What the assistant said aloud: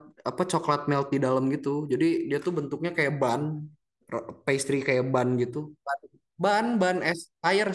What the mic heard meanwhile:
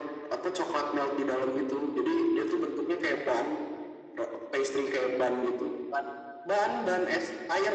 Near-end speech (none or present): none